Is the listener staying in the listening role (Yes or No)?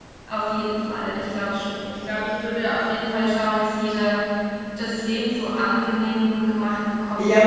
No